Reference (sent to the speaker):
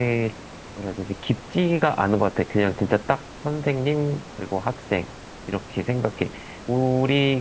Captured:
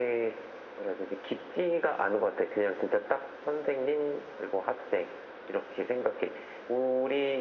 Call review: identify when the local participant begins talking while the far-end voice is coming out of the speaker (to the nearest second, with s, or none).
none